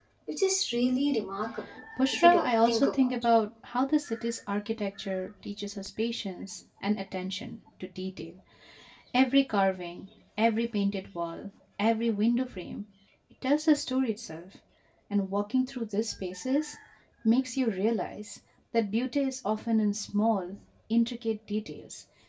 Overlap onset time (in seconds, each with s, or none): 2.0 s